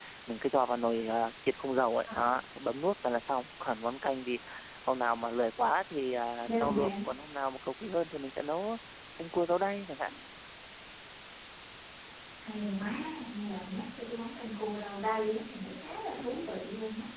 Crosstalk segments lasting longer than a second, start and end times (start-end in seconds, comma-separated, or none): none